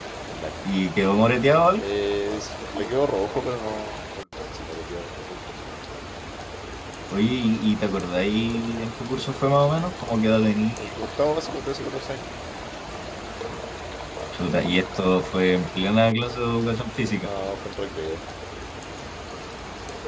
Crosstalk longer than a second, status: none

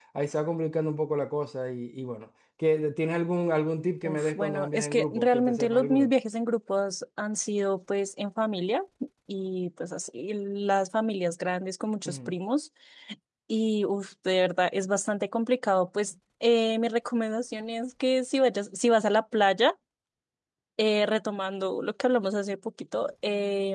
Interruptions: present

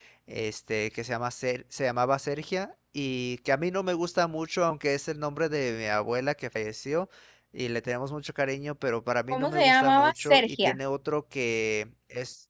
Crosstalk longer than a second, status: present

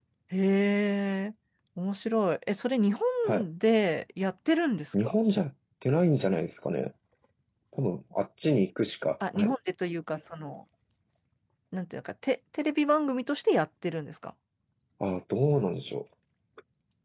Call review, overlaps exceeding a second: none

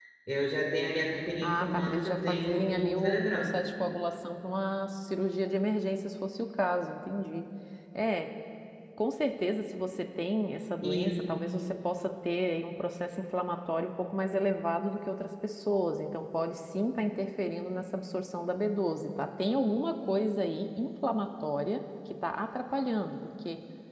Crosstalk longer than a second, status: present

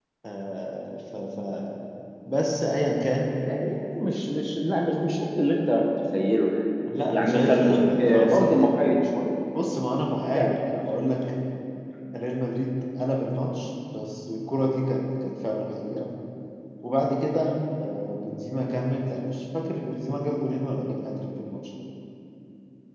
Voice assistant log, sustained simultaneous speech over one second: present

